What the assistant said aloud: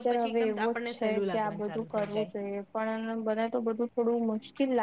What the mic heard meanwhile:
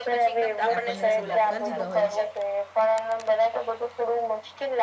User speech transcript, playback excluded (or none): આપણને સિલેક કરી દીધા હોય